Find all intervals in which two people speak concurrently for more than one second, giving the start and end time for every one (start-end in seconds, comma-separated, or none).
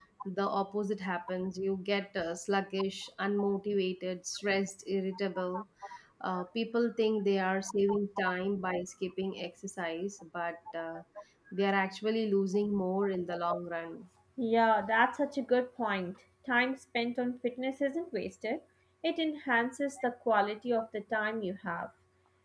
none